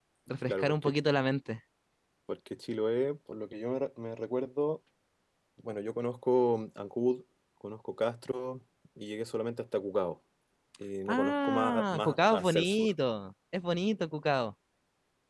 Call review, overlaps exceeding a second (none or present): present